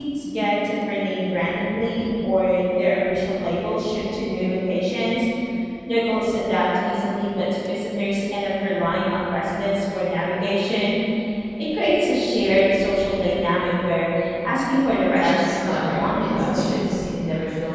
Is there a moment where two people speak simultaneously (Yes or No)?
Yes